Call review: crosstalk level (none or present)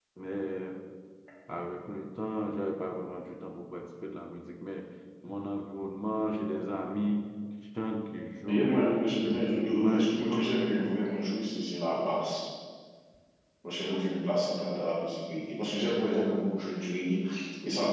present